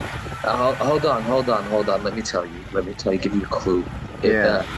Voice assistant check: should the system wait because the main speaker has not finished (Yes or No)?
Yes